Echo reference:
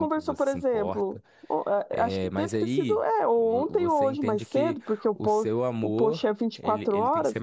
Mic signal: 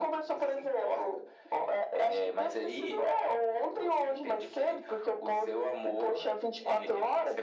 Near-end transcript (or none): none